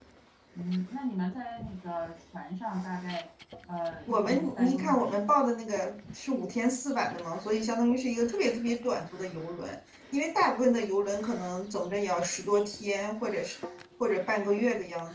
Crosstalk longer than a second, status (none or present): present